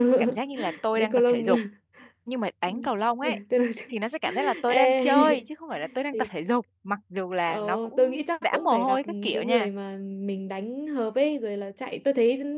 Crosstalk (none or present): present